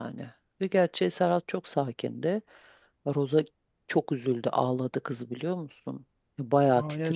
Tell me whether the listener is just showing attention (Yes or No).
No